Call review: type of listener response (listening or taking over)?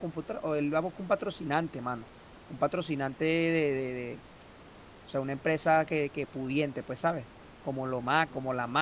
listening